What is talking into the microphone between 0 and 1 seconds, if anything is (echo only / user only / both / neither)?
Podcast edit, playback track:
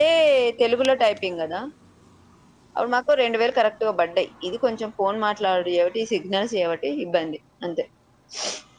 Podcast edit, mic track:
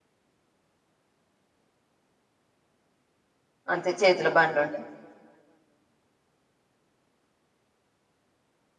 neither